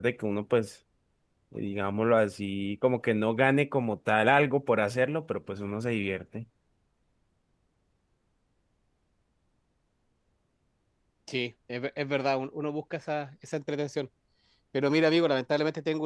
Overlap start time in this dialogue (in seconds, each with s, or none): none